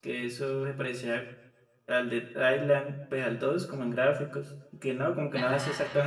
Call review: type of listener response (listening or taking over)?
listening